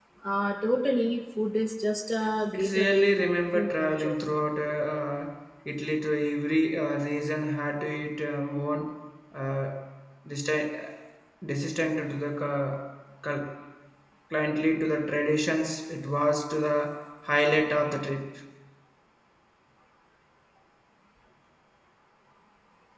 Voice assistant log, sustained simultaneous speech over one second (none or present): present